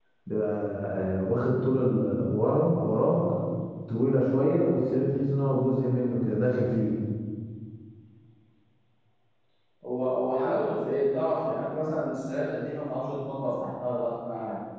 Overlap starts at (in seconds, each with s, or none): none